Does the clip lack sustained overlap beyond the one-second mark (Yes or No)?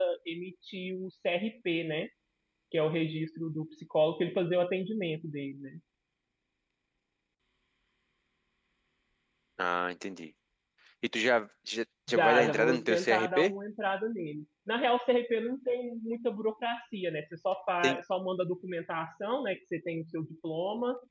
No